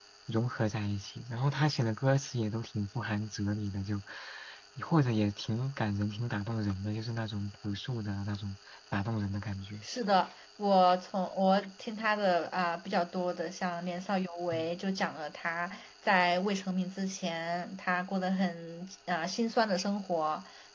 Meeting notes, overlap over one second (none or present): none